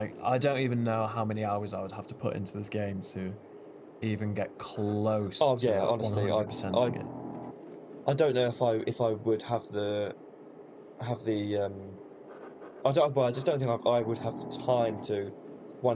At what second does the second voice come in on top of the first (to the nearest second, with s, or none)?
5 s